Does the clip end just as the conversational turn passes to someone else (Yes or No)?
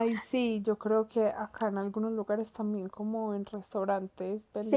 Yes